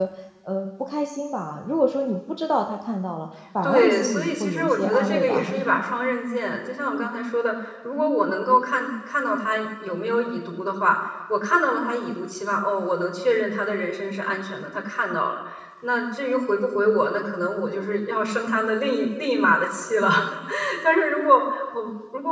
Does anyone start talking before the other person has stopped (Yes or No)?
Yes